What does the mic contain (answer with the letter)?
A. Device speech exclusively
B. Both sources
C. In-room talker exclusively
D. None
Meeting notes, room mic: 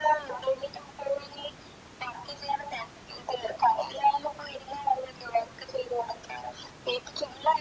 A